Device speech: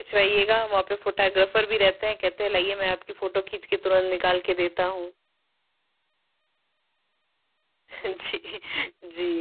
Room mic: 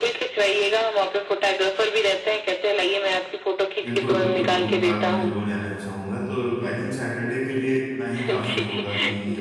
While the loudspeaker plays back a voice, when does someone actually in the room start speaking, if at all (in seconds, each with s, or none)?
3.8 s